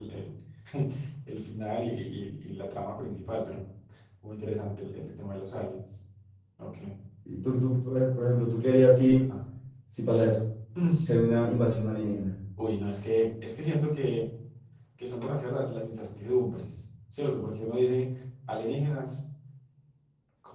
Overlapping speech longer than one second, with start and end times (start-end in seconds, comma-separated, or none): none